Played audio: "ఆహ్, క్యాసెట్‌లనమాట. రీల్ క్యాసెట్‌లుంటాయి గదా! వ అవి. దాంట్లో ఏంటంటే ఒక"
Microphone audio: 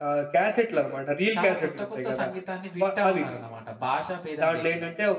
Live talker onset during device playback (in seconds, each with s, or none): 1.4 s